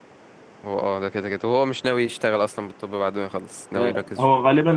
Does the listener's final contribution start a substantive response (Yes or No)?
Yes